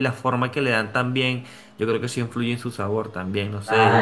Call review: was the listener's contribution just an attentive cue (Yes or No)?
No